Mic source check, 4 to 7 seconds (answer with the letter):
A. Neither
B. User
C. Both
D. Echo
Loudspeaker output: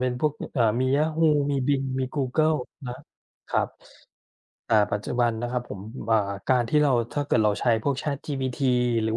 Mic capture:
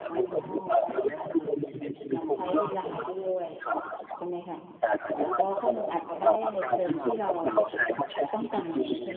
C